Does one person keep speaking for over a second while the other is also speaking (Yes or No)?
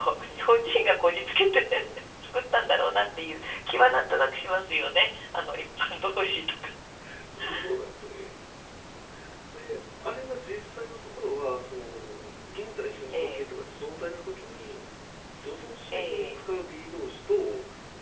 No